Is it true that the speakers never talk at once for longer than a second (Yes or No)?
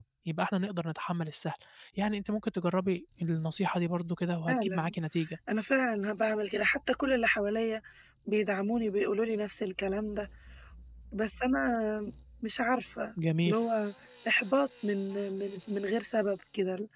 Yes